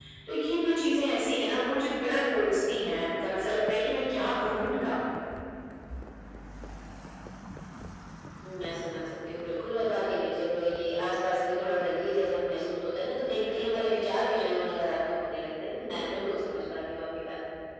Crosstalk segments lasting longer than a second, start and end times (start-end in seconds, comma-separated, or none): none